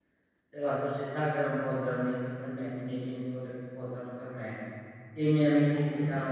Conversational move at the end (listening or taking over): listening